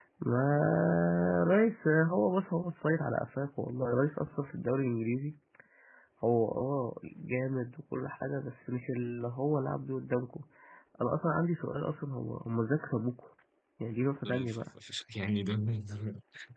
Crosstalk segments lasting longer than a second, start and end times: none

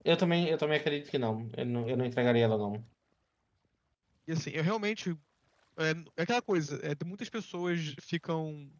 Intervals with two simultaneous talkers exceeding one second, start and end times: none

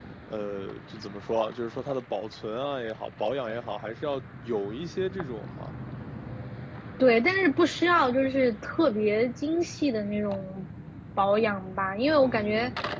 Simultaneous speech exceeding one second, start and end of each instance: none

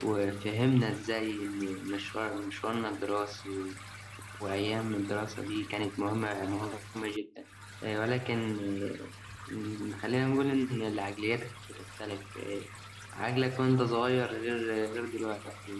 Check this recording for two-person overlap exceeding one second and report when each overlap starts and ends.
none

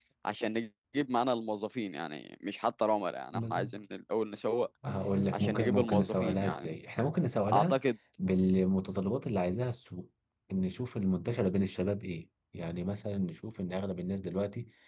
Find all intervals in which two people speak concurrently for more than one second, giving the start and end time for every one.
5.3-6.7

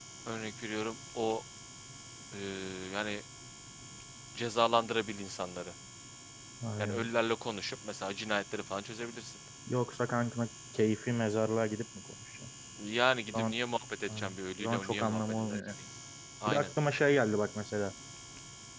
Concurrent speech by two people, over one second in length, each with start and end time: 14.1-15.6

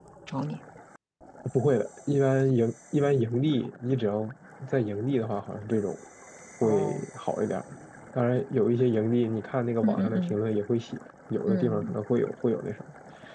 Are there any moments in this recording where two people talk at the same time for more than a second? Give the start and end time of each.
none

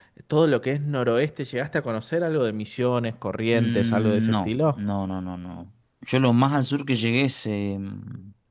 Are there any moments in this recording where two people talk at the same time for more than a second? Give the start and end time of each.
3.5-4.8

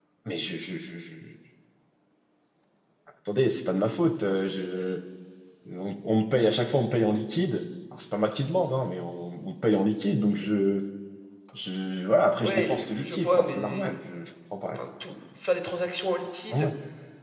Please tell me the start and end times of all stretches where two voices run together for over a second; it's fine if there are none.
12.4-13.9

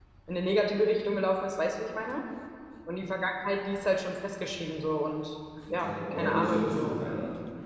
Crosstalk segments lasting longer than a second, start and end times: 5.7-7.0

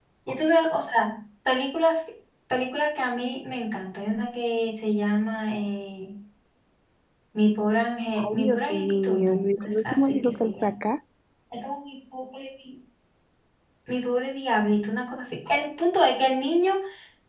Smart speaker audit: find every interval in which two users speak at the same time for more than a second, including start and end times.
8.2-10.7

